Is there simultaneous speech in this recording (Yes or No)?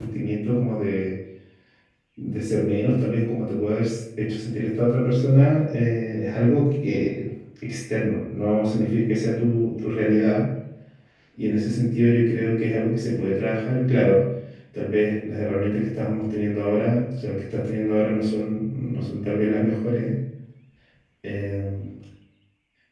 No